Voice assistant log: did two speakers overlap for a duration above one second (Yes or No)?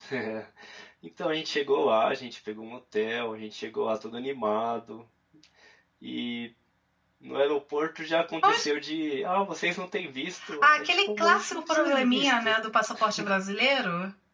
Yes